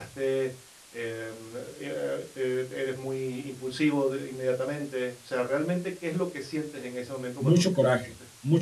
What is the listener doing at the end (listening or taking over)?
taking over